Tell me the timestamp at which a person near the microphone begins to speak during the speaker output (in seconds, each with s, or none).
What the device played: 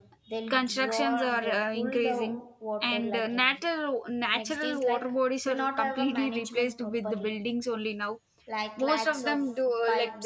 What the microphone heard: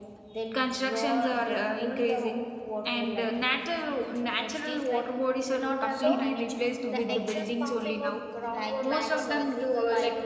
5.9 s